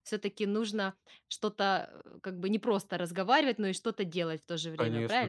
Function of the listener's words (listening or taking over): taking over